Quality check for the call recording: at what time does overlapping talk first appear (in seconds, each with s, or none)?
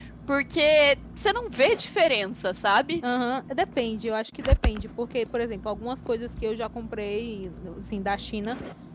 none